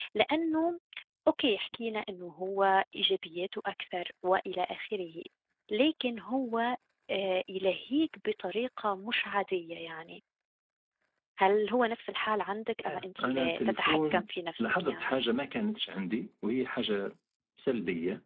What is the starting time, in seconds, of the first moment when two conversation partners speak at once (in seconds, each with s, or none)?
12.8 s